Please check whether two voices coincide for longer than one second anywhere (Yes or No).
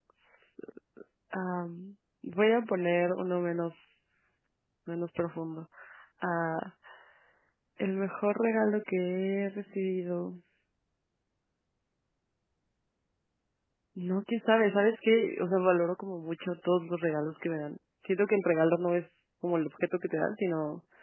No